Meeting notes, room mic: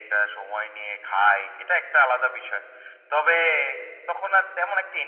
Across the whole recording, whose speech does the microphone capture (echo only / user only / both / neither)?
echo only